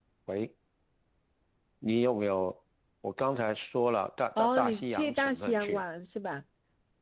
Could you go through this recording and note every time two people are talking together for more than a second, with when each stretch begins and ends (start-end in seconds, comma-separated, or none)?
4.4-5.8